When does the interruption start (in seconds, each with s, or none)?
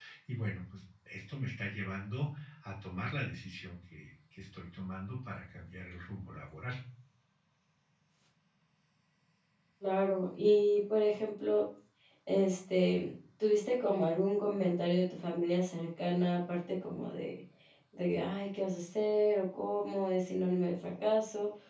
none